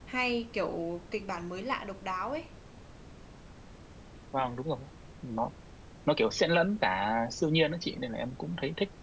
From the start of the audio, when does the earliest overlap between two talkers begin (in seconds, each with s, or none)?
none